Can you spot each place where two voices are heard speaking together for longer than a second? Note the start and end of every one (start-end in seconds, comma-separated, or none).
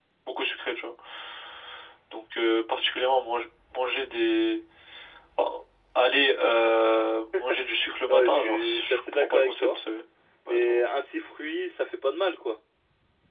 8.1-9.7